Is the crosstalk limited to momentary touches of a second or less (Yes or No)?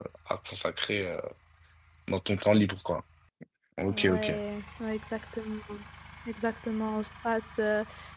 Yes